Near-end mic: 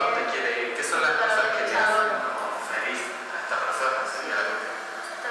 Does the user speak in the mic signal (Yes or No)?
Yes